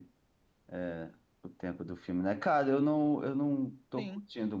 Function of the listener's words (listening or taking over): listening